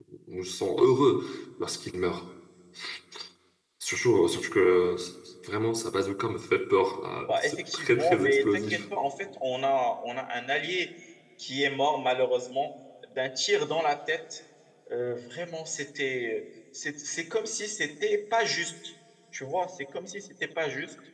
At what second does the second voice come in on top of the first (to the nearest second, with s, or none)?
7 s